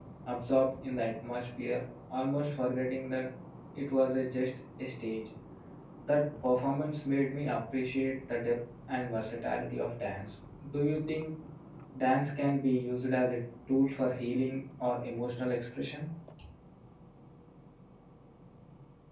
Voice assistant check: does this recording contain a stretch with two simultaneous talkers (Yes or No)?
No